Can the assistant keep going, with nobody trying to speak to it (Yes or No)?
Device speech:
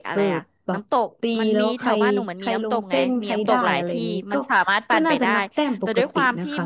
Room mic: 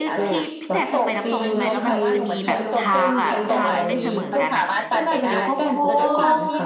No